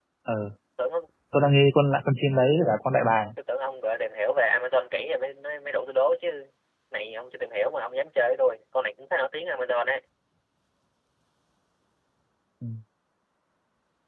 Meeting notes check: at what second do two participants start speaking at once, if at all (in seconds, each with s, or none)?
none